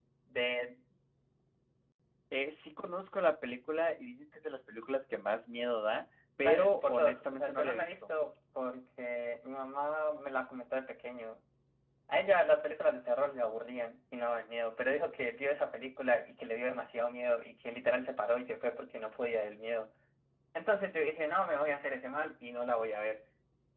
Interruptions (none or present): present